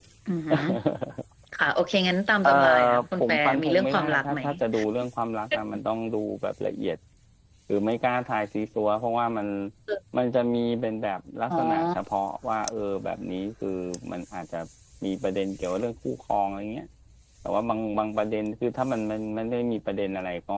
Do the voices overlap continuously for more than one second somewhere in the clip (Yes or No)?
Yes